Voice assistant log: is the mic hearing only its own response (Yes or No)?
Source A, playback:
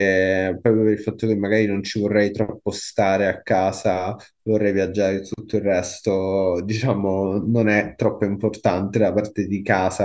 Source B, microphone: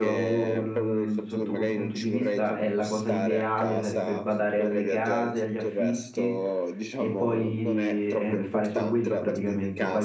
No